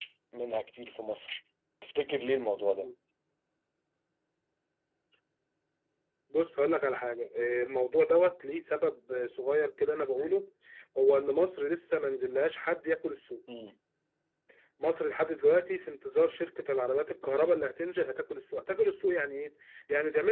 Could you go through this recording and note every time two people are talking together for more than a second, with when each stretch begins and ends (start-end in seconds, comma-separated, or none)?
none